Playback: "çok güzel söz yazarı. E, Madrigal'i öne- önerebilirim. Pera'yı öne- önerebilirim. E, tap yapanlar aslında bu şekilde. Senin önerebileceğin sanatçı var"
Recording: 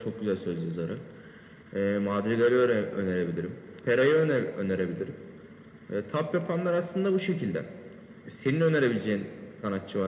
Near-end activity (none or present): none